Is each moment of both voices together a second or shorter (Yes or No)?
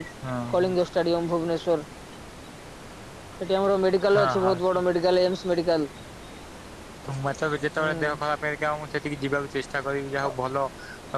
Yes